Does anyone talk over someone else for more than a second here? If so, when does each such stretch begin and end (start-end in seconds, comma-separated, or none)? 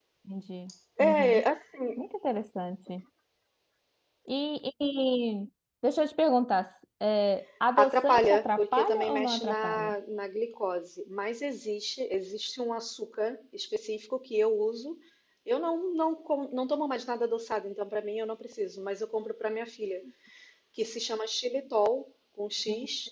7.8-9.9